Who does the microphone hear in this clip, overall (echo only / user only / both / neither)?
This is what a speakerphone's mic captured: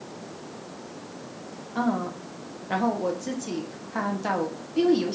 user only